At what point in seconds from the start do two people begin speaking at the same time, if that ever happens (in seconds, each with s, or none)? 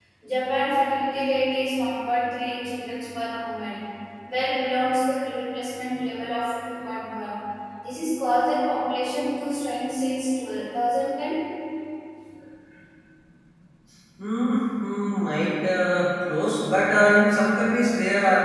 none